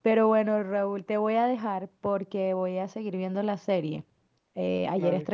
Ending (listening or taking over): listening